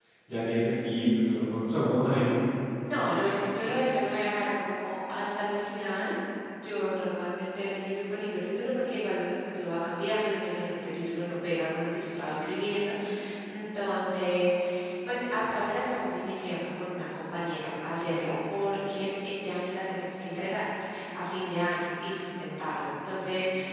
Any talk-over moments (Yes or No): No